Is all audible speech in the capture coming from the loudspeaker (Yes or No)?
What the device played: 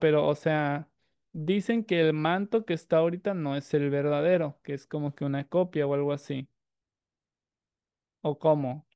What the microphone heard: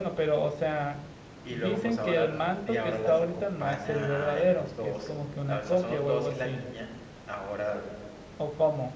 No